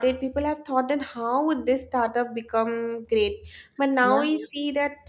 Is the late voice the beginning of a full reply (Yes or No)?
No